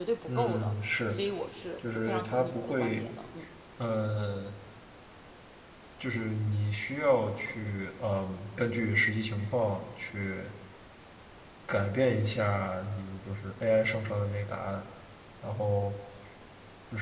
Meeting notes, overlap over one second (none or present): present